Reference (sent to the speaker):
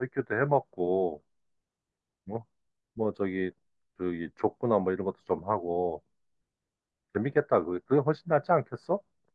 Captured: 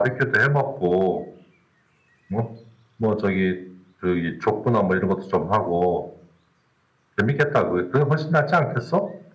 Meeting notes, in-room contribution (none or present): none